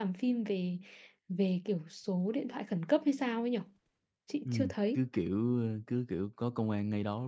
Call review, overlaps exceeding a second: none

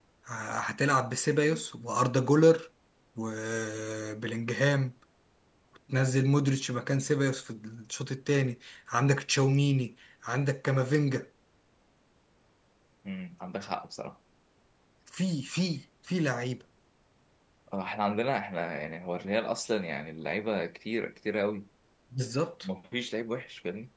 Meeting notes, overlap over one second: none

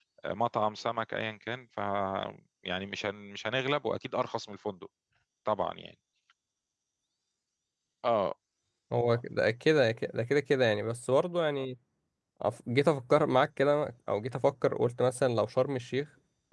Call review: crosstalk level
none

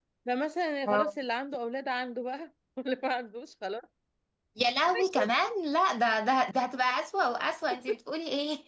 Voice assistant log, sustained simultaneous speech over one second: none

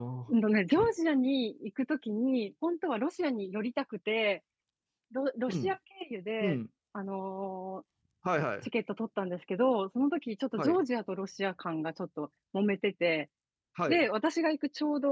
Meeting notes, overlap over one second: none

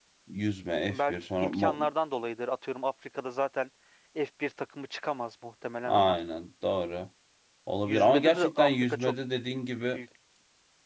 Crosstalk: present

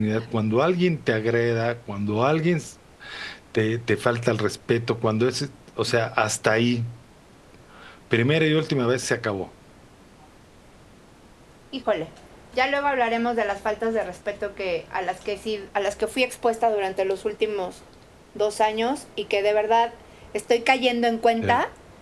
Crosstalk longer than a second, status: none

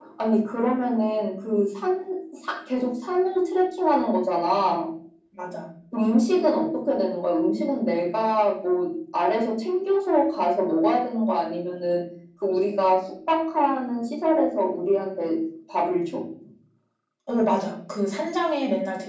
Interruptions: none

